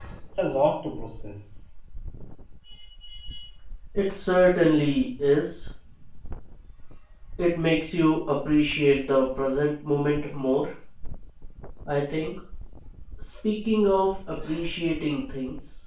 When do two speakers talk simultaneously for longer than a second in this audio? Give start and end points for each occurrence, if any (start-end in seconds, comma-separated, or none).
none